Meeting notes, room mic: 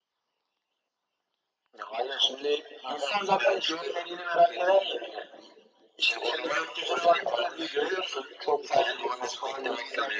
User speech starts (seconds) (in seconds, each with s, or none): none